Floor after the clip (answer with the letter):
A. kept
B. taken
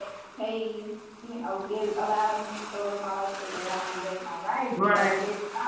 A